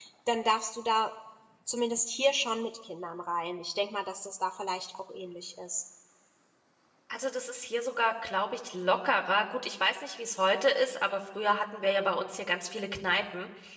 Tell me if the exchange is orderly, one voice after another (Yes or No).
Yes